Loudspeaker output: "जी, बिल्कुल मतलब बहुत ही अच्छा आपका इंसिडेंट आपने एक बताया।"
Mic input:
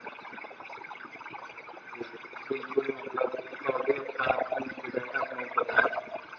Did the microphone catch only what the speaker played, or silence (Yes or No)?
Yes